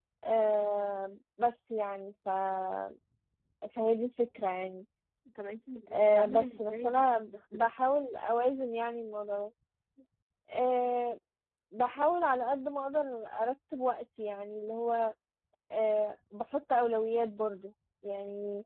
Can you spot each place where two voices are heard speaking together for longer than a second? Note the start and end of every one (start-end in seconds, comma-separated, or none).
5.9-7.7